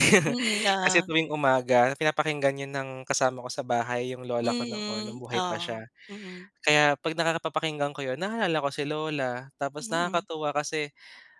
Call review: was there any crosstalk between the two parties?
Yes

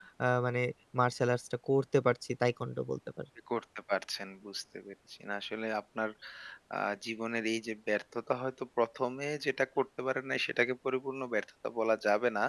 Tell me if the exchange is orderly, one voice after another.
Yes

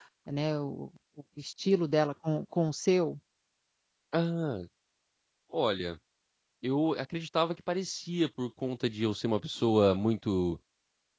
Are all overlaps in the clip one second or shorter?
Yes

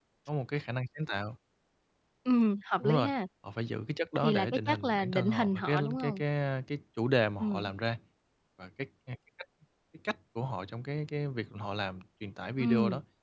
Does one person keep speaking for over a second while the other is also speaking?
Yes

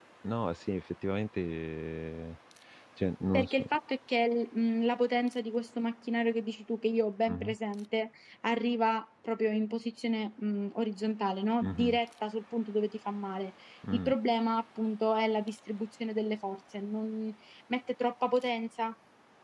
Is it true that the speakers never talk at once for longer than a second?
Yes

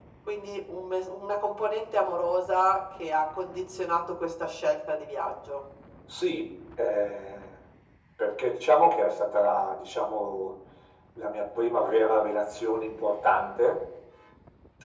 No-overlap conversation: Yes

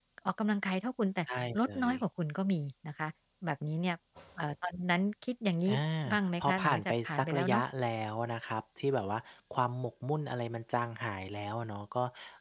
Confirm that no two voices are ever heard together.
No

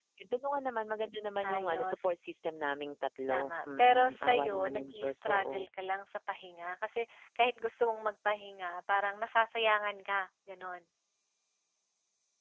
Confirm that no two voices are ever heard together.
No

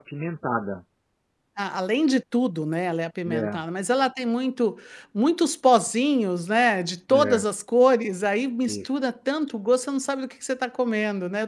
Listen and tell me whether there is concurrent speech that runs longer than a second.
No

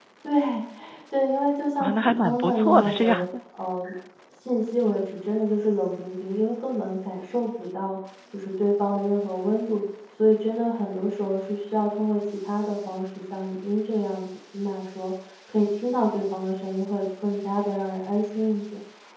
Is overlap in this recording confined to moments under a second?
No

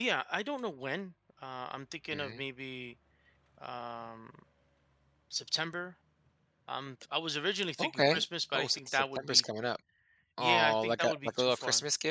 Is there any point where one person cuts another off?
Yes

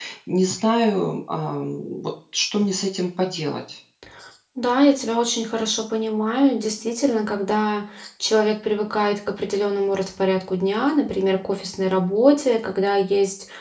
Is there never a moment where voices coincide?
Yes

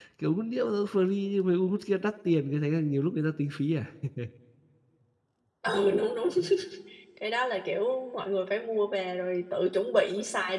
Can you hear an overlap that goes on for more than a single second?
No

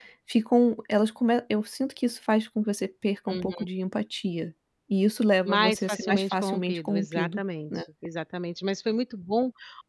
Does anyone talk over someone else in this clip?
Yes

